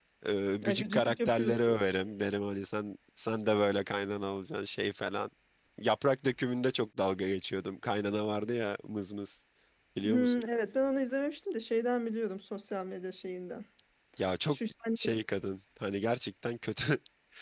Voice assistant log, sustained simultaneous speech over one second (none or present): present